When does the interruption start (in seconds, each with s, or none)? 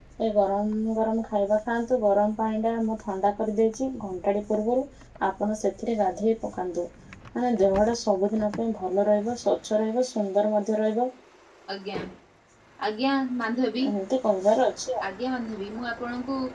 none